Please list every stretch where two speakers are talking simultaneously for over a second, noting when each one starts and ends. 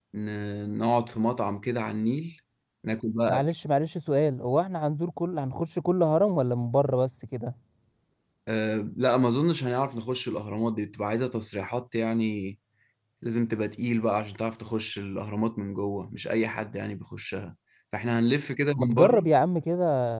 none

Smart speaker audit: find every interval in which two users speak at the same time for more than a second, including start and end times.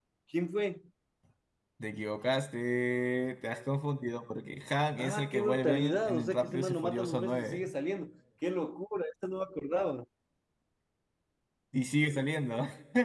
5.0-7.7

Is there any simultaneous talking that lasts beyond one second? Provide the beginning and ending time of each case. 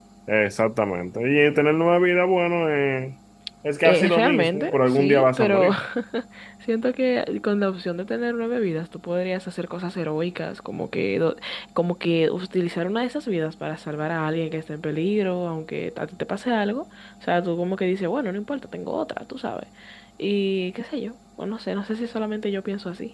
3.8-5.7

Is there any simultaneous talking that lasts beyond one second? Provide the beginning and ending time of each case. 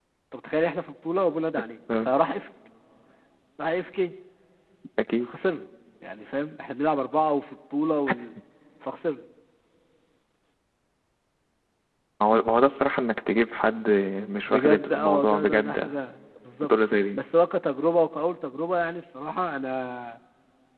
14.5-16.0

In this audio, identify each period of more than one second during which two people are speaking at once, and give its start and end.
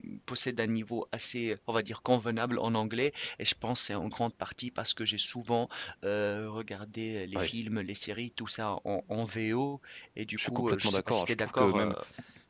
10.4-11.9

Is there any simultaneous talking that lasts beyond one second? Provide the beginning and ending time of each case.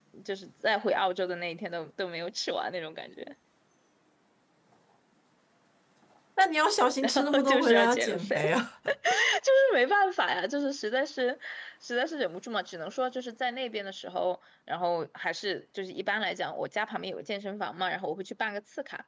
7.0-8.4

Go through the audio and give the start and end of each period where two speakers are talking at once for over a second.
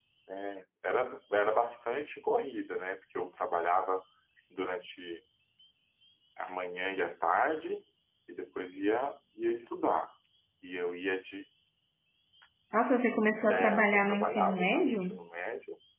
13.5-15.2

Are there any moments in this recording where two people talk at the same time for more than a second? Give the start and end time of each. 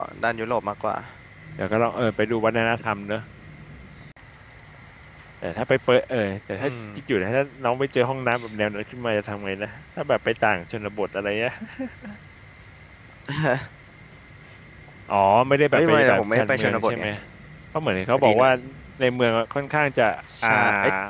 15.7-17.0

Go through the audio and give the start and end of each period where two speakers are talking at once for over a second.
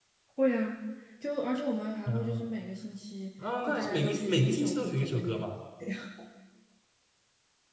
3.7-5.4

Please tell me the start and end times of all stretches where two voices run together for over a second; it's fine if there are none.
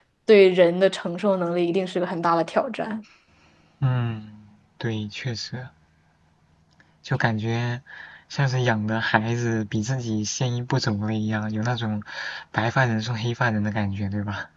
none

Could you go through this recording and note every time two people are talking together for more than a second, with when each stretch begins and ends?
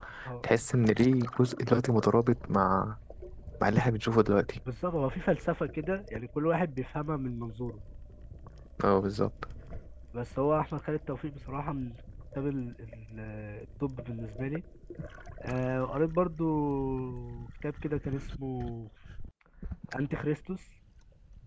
none

